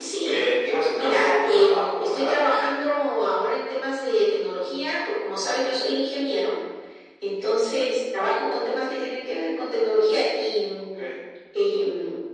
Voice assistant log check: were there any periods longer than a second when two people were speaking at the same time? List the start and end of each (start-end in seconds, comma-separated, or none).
0.9-2.3